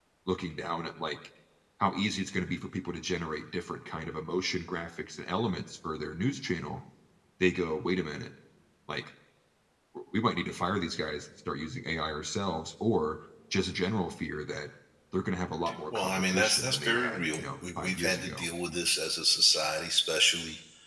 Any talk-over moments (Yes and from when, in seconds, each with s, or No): Yes, from 15.9 s